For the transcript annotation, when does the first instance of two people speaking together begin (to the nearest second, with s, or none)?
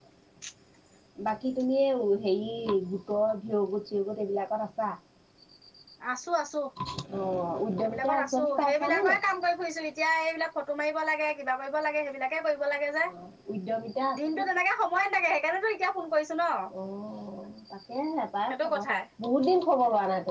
8 s